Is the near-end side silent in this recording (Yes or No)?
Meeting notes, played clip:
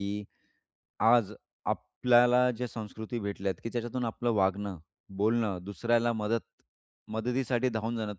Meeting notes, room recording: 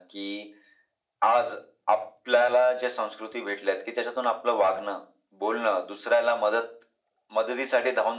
Yes